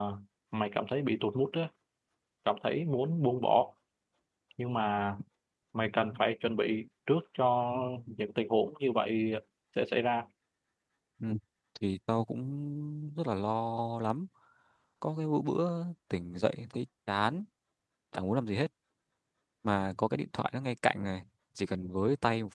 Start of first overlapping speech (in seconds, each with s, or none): none